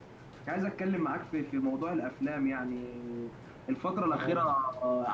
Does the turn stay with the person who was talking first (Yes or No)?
Yes